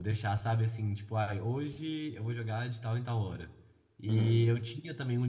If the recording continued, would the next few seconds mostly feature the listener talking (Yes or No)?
No